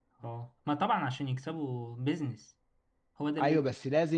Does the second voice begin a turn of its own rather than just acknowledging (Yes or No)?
Yes